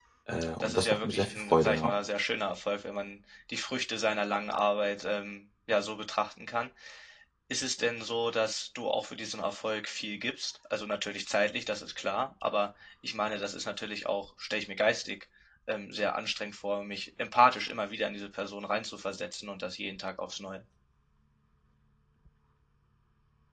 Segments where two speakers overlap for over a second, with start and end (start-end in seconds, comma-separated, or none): 0.6-1.9